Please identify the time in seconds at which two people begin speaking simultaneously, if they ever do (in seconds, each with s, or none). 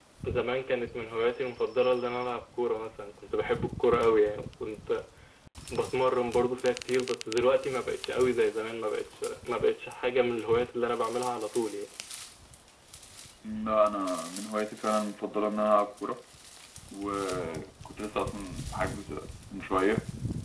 none